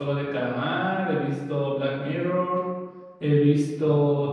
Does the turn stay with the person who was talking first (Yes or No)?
Yes